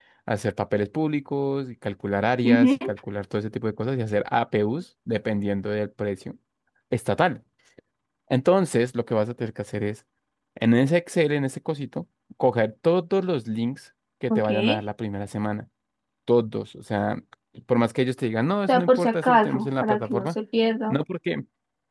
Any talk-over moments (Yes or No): Yes